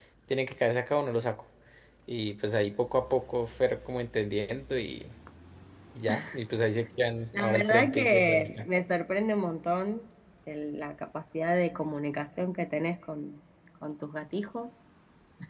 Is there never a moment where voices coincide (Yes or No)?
No